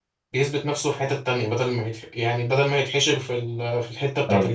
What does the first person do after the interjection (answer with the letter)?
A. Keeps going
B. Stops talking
B